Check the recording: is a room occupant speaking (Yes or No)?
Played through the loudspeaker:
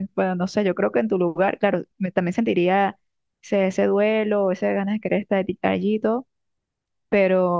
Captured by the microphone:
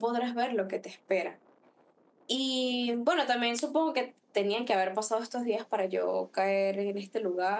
Yes